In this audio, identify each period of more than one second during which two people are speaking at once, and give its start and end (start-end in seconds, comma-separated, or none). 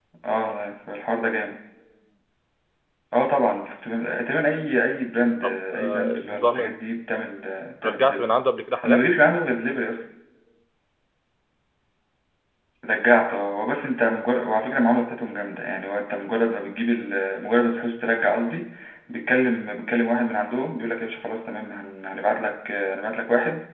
5.4-6.8